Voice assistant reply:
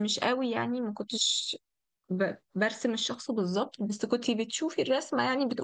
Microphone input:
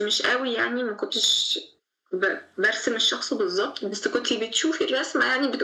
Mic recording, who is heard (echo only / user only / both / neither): echo only